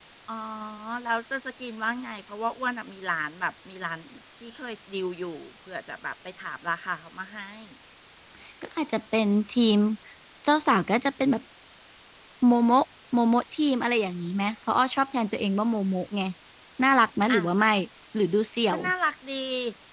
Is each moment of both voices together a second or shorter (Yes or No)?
Yes